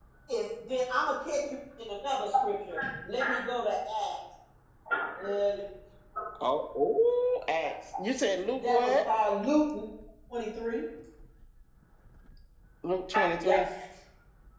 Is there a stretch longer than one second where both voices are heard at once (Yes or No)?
No